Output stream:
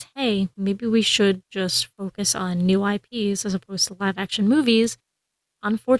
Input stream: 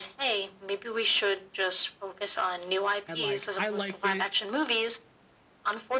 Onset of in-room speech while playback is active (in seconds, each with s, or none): 3.1 s